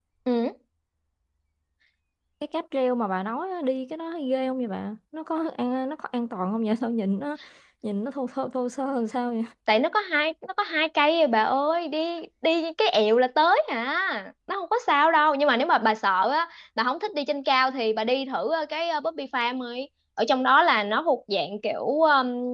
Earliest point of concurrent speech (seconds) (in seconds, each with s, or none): none